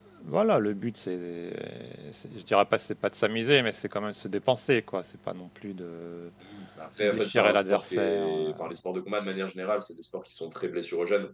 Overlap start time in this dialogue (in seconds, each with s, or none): 7.0 s